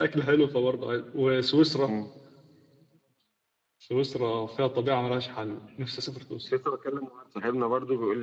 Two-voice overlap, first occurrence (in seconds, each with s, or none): none